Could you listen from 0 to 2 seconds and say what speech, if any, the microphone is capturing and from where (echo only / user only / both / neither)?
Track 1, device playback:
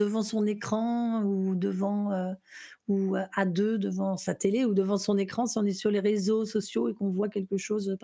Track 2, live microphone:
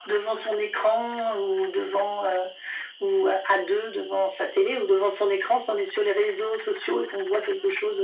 echo only